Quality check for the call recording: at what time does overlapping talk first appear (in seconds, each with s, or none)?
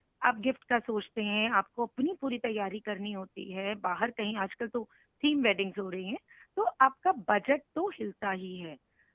none